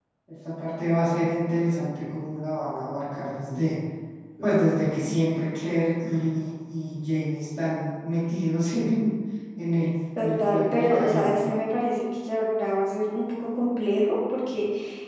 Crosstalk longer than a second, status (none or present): present